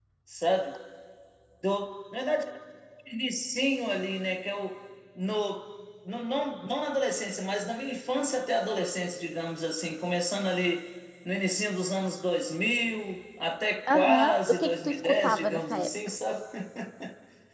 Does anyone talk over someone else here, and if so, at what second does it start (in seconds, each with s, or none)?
13.9 s